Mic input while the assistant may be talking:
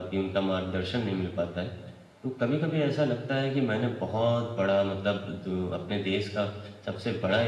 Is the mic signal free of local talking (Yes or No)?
Yes